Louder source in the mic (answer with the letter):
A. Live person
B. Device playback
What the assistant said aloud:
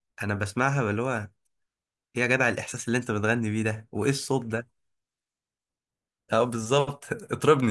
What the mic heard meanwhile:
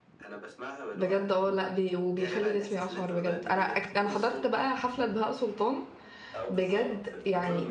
A